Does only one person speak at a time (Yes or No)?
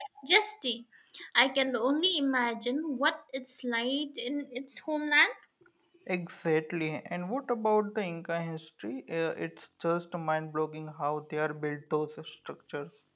Yes